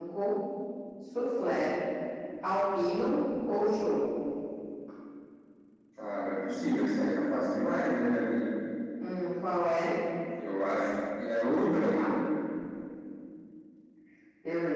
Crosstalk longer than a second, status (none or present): none